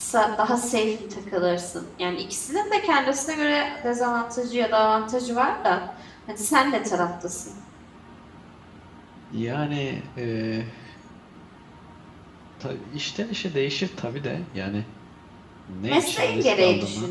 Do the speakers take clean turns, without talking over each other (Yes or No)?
No